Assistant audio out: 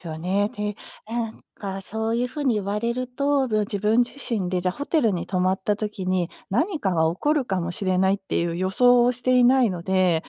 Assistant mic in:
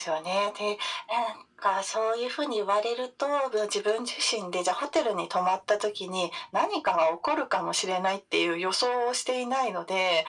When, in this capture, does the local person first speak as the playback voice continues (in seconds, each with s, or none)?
none